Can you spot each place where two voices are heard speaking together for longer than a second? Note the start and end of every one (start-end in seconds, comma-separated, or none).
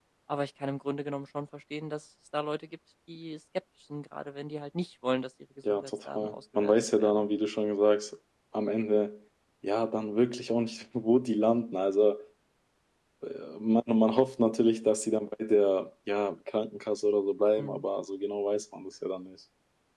5.7-7.2